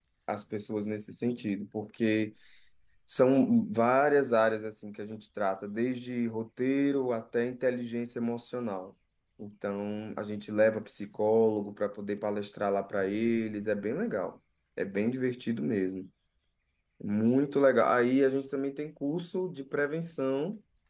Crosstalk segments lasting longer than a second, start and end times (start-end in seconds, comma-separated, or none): none